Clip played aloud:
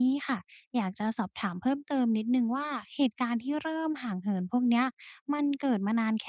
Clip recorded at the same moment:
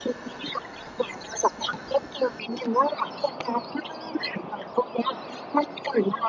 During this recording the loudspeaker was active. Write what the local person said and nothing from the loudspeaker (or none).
none